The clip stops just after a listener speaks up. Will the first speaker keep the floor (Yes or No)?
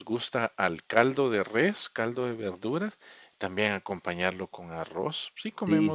No